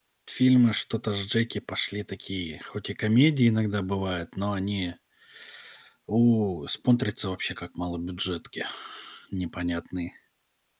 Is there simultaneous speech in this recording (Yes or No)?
No